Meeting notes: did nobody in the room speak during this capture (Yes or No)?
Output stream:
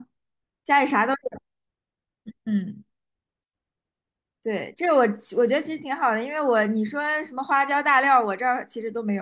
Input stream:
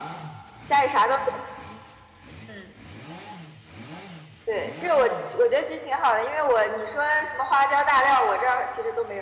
Yes